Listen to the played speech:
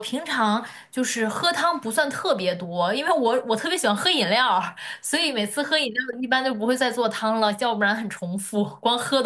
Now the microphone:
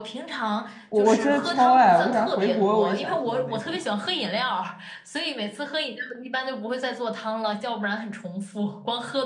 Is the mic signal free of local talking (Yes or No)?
No